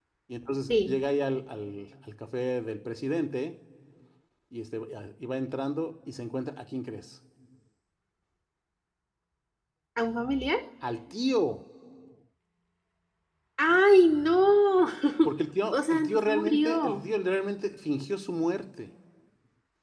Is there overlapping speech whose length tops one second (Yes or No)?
Yes